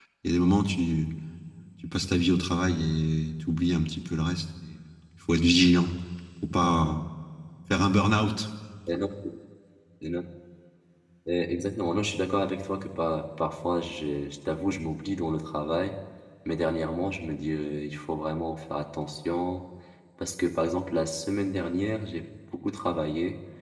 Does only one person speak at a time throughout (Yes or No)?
Yes